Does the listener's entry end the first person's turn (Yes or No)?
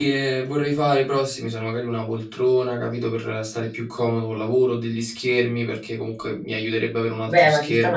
Yes